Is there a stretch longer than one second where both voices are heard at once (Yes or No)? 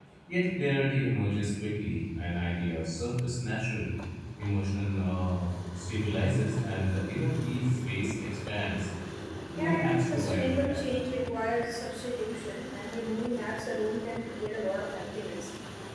Yes